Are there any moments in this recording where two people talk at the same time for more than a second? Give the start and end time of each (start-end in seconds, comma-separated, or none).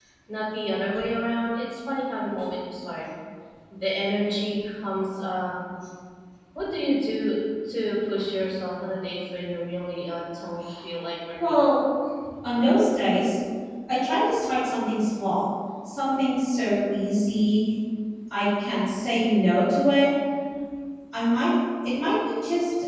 none